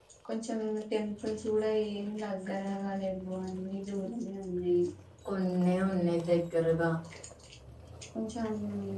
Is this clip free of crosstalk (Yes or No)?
Yes